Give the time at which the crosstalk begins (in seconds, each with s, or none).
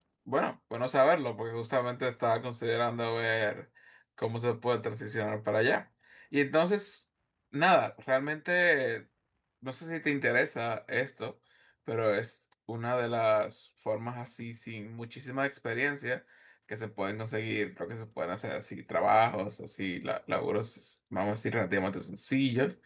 none